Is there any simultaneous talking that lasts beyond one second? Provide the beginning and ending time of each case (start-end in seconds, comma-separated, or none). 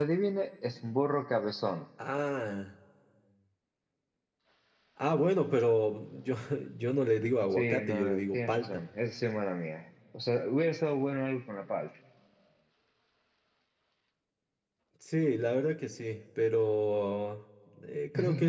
7.5-8.8